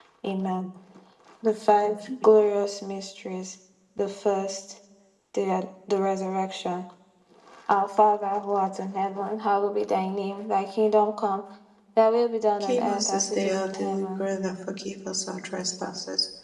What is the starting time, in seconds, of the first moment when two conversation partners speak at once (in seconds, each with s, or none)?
12.6 s